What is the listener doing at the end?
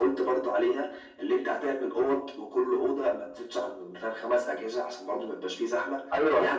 taking over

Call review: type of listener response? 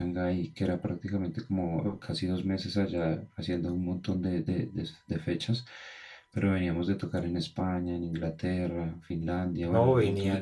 taking over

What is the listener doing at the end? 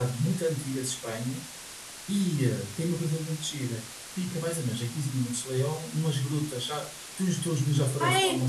taking over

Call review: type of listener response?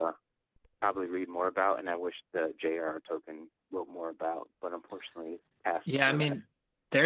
taking over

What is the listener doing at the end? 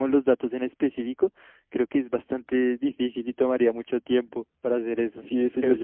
taking over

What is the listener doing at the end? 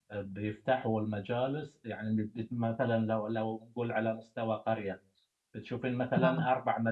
listening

